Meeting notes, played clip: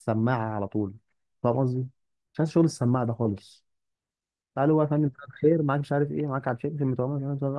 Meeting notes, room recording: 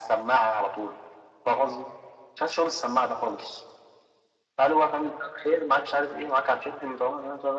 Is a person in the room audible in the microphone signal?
No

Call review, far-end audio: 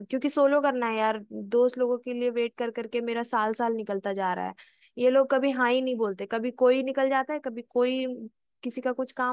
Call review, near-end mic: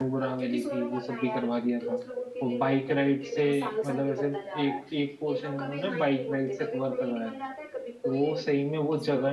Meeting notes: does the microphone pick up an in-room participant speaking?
Yes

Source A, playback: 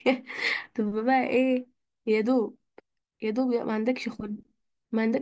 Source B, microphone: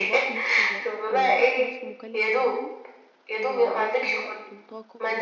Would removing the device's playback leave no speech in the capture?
No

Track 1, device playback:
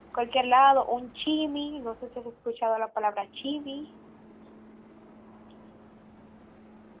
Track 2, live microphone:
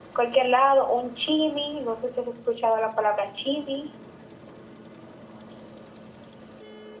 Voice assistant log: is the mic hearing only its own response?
Yes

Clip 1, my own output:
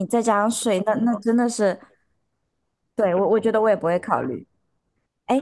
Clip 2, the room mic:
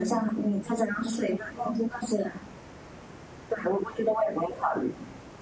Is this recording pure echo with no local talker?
Yes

